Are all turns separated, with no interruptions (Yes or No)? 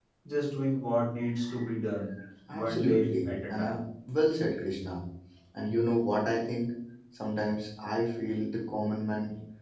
No